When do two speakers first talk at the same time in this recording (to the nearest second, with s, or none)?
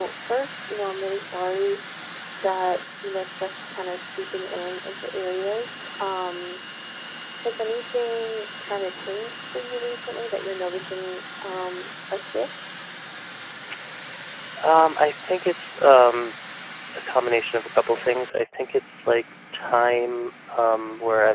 none